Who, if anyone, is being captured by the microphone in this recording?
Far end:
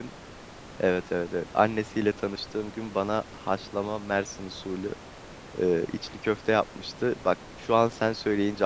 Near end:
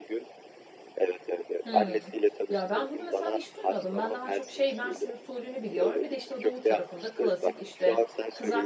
both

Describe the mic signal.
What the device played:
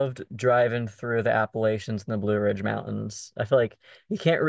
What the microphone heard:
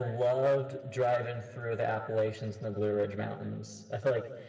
echo only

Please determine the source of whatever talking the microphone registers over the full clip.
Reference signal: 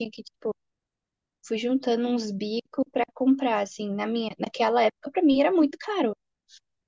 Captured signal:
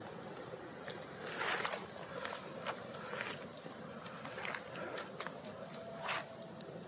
neither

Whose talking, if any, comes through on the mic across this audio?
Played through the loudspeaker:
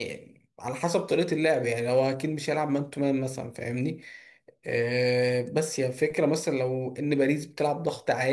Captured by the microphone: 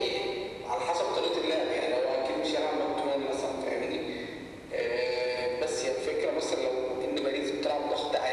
echo only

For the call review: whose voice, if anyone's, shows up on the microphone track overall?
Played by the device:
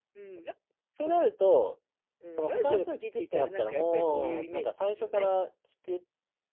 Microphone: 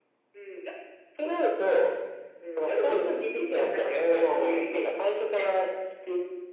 both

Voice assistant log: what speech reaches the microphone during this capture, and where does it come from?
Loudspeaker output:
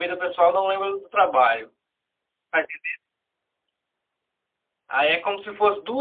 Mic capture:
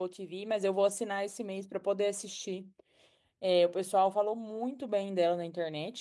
user only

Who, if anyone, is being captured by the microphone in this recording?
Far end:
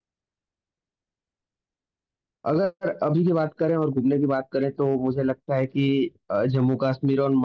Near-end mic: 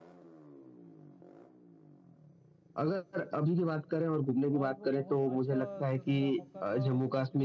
both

